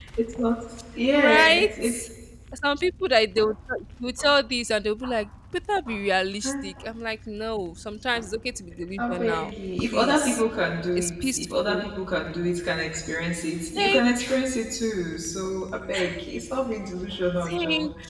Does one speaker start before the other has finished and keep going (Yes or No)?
Yes